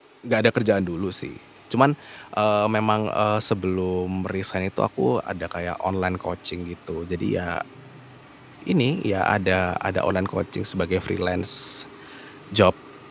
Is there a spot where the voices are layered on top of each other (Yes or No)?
No